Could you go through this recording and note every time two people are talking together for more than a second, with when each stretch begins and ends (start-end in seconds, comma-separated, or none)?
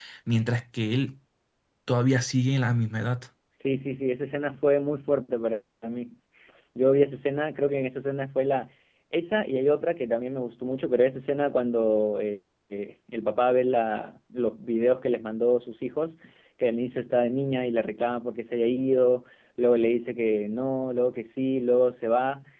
none